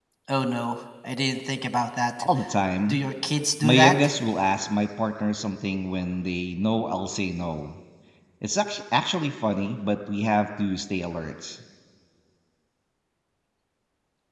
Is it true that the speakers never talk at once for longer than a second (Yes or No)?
Yes